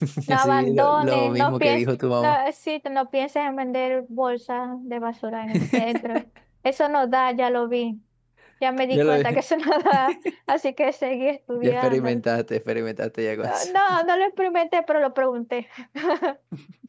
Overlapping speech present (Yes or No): Yes